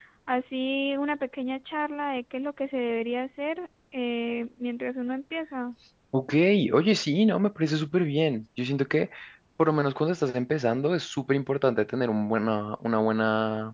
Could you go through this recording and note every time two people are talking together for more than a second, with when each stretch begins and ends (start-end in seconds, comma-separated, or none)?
none